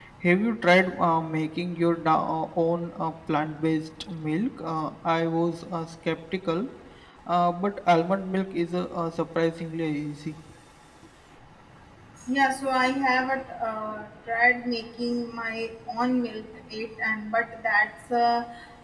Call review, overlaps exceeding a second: none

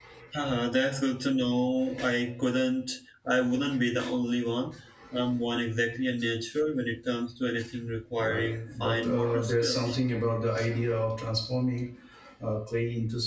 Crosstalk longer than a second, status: present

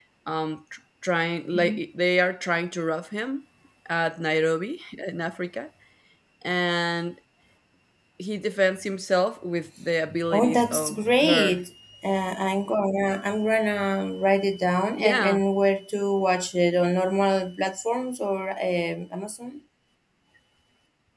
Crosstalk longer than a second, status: present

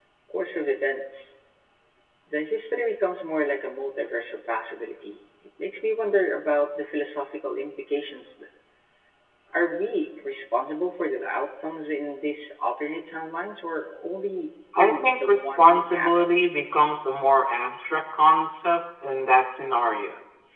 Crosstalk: present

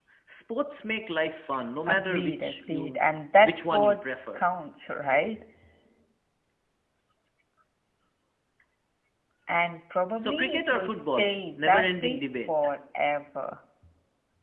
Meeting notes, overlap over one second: present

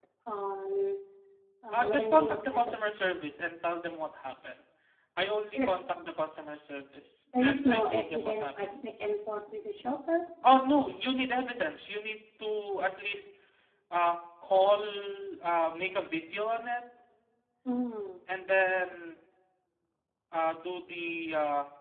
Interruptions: present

